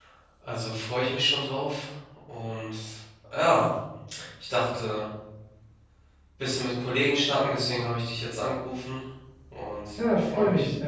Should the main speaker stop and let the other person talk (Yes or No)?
Yes